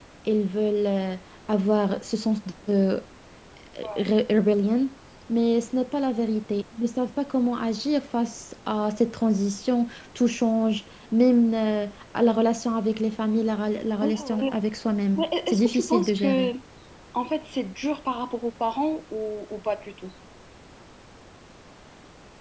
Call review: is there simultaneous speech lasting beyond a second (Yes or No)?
Yes